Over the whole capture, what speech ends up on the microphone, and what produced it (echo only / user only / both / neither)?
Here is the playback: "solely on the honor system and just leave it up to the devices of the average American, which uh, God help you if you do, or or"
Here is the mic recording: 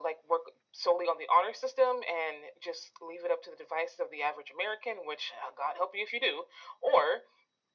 echo only